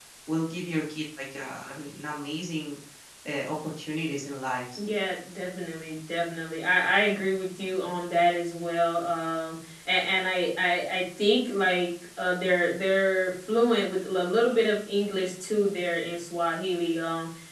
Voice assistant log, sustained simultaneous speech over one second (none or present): none